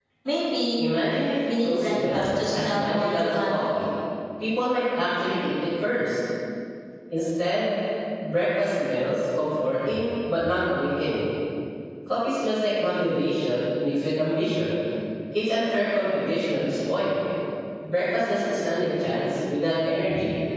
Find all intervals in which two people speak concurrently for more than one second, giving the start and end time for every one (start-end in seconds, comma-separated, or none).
1.5-3.6